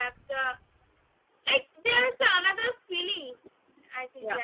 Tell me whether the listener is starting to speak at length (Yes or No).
Yes